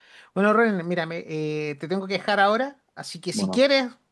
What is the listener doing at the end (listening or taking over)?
listening